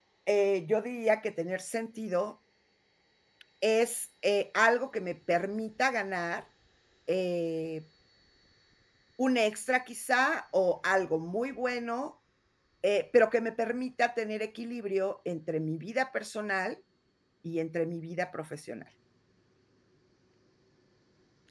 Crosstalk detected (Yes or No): No